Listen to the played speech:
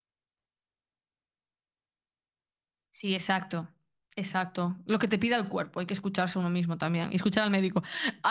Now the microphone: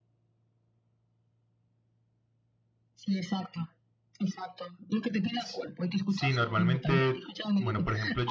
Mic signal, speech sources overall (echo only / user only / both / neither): both